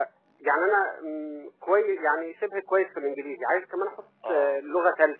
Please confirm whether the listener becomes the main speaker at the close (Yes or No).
No